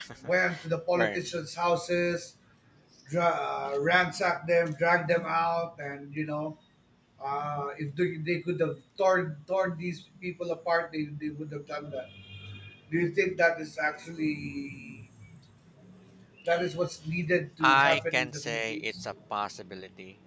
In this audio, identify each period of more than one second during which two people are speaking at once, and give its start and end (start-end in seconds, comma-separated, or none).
17.6-19.1